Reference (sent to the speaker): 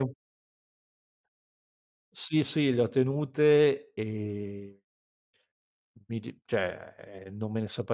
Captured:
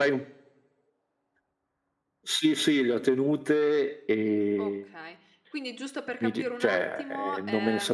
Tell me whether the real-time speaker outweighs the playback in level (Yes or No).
No